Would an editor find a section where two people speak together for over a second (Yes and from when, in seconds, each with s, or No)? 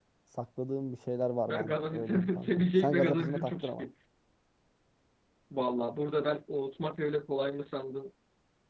Yes, from 1.5 s